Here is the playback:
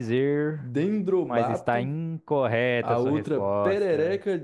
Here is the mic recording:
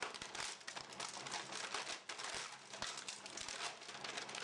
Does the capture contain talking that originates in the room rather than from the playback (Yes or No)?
No